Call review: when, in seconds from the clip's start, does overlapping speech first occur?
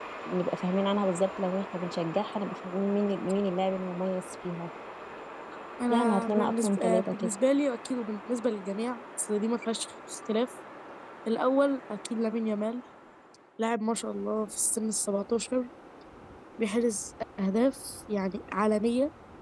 5.9 s

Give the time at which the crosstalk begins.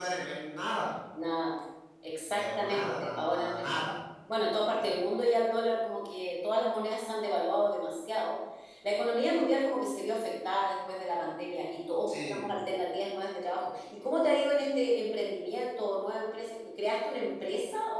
2.4 s

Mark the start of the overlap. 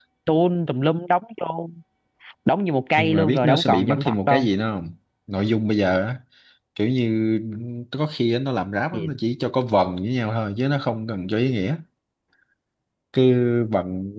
3.0 s

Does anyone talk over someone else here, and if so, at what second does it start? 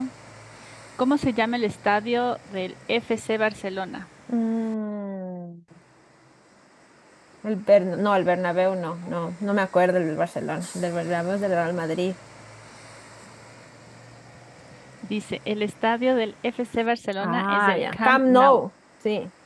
17.2 s

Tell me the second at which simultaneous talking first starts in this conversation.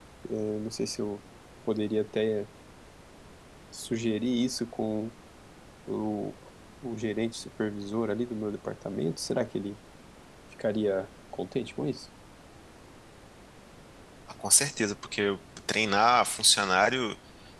none

